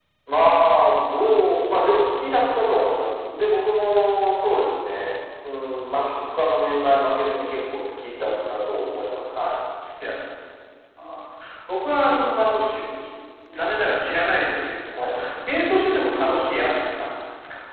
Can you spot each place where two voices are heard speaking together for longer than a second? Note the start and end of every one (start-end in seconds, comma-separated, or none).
none